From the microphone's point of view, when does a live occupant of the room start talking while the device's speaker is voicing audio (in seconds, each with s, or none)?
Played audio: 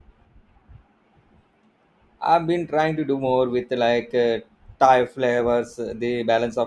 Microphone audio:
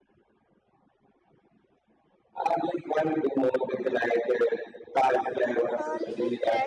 5.7 s